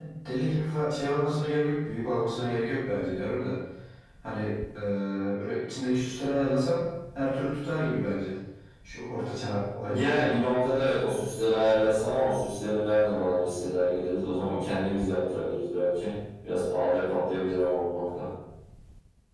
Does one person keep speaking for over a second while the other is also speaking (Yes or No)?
No